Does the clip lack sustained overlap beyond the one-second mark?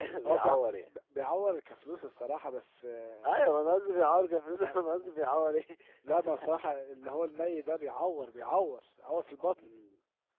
Yes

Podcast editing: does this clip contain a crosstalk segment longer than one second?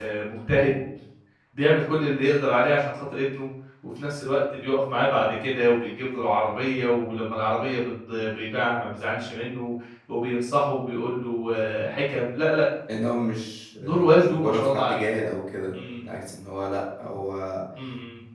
Yes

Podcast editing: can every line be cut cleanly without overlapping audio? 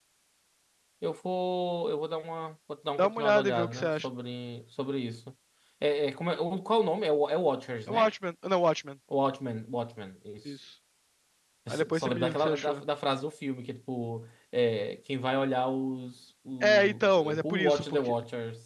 No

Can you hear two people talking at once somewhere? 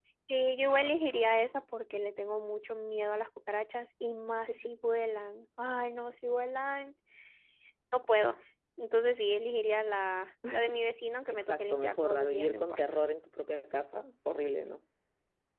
Yes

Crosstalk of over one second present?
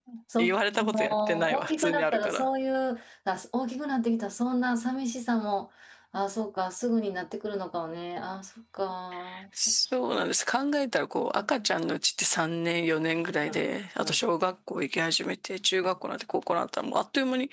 Yes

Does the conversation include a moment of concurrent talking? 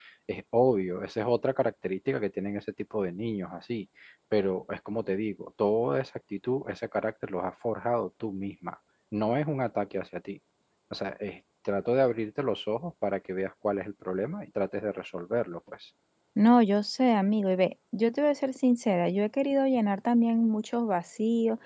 No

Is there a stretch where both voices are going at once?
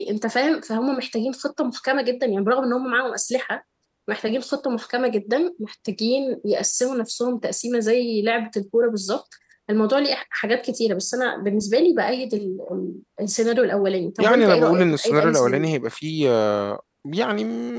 Yes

